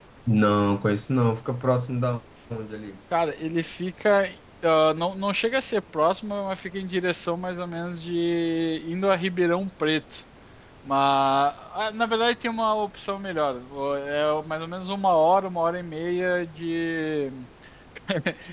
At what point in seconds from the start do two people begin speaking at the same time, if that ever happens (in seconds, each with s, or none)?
none